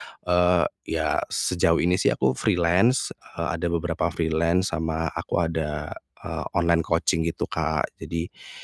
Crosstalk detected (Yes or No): No